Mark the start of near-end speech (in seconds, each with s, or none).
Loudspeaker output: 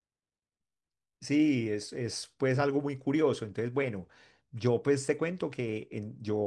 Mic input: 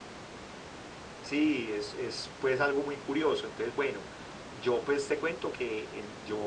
none